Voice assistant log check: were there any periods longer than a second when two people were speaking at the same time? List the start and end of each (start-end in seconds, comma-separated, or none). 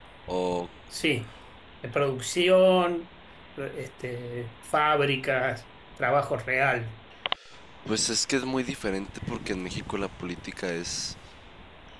none